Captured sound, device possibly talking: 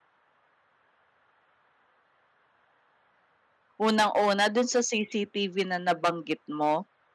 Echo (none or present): none